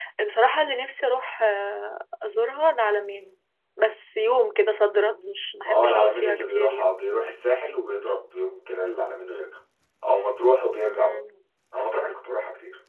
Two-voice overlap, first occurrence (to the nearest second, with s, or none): 6 s